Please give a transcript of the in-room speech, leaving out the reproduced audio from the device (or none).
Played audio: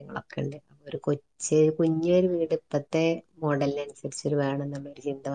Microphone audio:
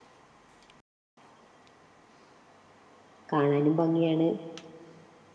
കാണാനും ഭംഗിയാണ്